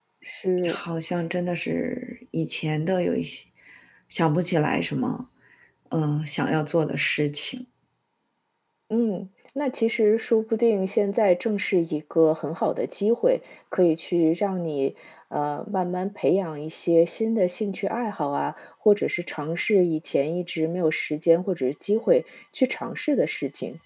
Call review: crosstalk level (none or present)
none